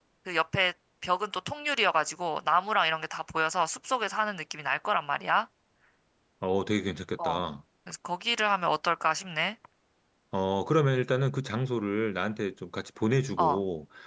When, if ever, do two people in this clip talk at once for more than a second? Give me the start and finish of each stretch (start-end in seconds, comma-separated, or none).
none